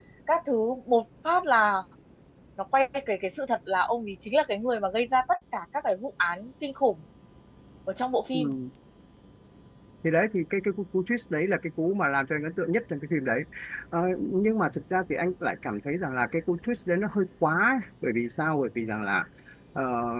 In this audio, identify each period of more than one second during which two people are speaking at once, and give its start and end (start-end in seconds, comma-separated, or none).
none